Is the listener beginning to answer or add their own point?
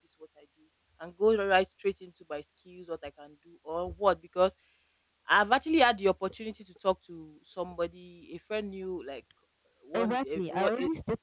Yes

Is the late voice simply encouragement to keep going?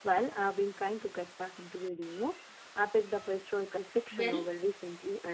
Yes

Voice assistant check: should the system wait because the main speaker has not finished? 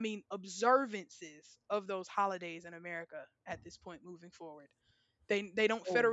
Yes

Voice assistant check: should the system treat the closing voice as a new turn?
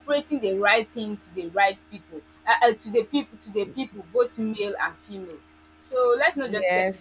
Yes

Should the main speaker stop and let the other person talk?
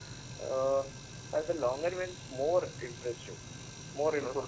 No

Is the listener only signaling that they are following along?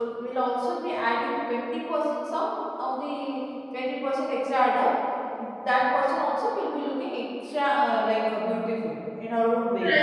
No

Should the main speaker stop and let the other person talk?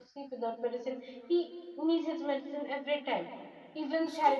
No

